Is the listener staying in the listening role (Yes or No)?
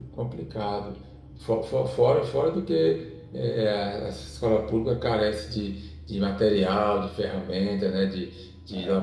Yes